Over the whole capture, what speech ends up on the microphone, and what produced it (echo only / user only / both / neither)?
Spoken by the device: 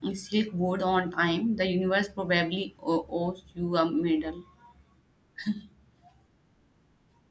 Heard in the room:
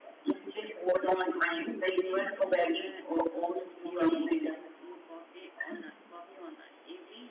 both